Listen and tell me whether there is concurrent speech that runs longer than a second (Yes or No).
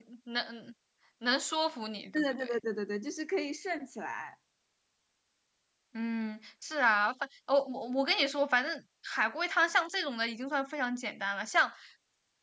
No